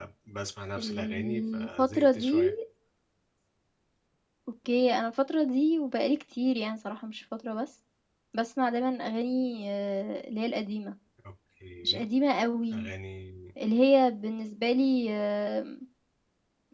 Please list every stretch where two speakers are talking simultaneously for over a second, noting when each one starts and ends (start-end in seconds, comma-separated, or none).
0.8-2.5